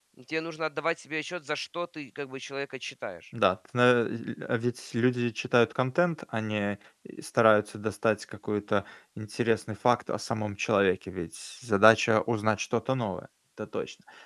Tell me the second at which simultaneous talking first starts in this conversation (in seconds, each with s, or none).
none